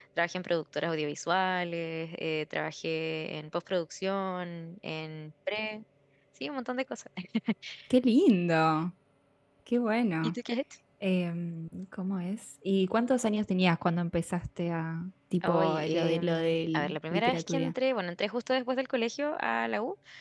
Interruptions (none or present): present